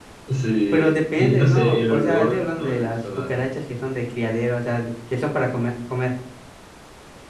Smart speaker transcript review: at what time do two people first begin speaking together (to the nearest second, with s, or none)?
1 s